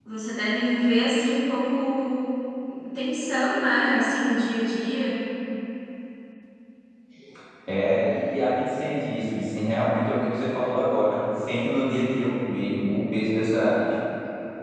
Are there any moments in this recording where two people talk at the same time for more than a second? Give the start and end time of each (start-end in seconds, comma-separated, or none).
none